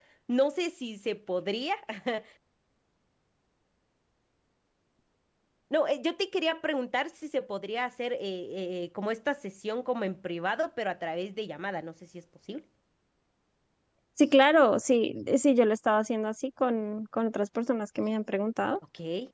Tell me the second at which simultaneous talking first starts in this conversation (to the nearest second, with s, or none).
none